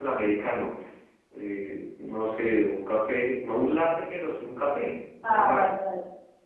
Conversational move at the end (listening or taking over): taking over